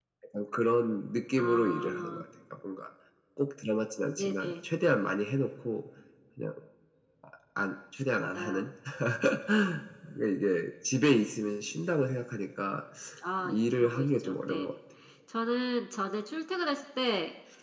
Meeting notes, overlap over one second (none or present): present